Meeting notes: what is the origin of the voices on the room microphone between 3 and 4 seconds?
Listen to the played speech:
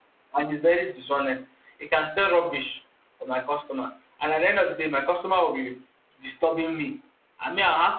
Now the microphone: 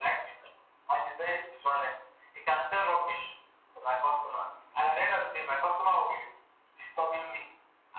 echo only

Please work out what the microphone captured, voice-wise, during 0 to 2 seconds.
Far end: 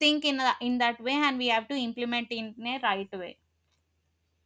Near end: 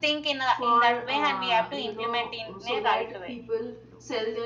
both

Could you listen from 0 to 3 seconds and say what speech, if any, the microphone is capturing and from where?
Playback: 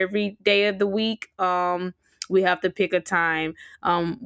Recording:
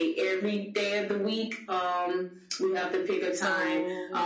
echo only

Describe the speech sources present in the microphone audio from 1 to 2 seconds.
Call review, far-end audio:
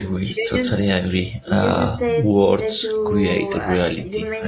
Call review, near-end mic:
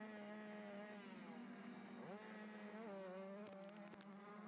neither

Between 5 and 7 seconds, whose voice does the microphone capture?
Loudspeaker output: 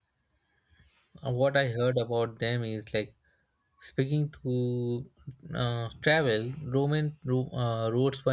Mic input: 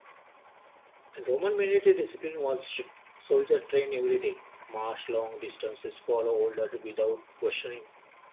user only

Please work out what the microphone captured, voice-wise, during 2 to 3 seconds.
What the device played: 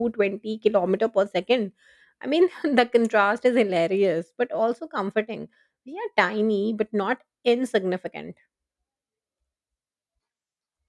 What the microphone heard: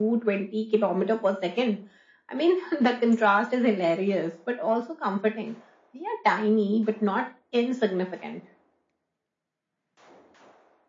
echo only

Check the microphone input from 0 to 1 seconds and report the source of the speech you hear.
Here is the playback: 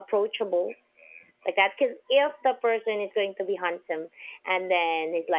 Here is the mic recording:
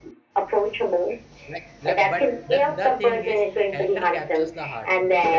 echo only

